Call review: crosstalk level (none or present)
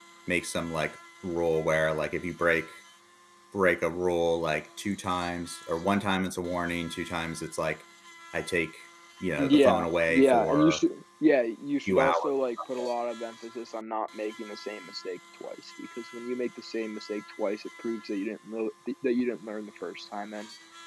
present